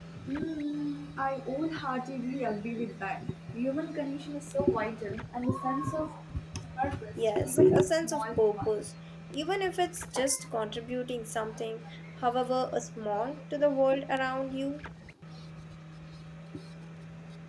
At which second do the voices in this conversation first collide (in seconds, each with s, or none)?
7.2 s